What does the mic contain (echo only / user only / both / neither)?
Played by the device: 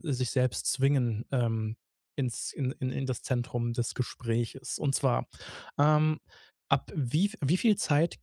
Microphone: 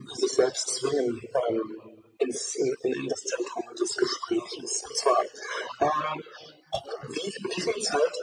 echo only